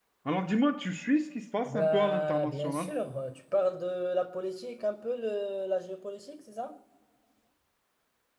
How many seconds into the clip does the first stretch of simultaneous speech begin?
1.6 s

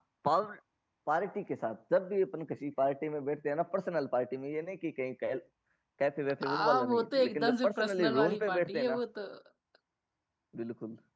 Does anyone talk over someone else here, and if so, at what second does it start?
6.6 s

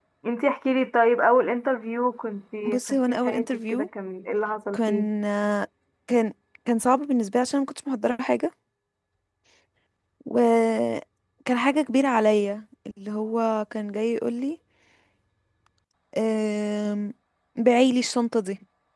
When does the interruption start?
2.6 s

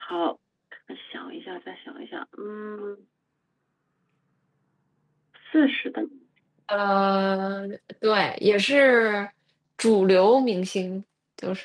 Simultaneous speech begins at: none

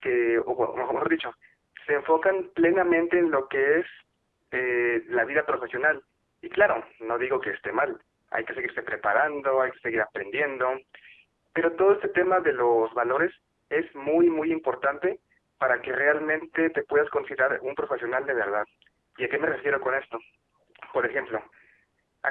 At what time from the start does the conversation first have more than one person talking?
none

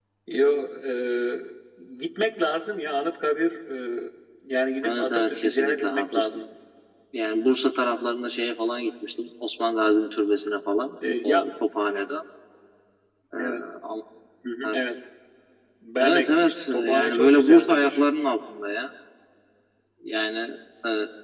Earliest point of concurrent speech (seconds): 4.8 s

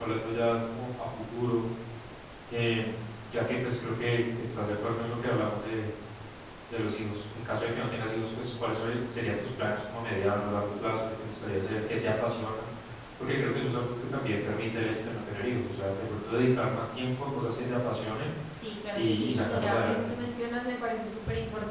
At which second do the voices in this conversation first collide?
18.9 s

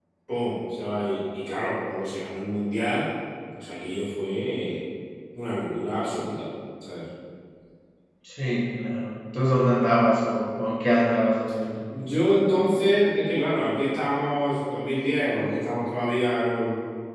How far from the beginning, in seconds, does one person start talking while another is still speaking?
none

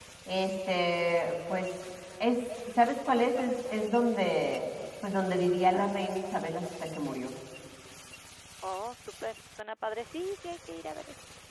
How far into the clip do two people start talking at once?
none

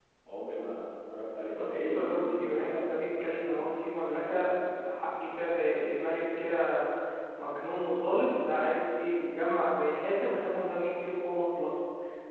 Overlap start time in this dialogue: 1.5 s

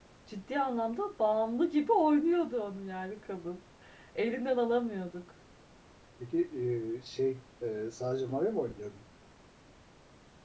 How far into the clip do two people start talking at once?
none

